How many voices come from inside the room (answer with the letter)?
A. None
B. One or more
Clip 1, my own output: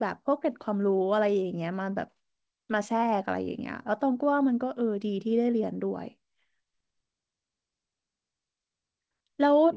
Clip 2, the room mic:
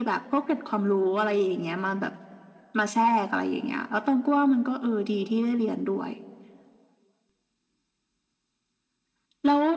A